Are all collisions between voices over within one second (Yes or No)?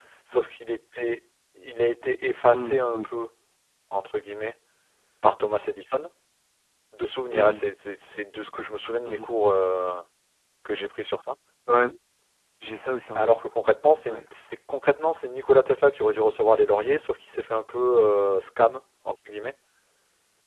Yes